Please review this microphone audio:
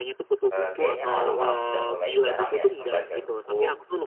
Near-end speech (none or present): present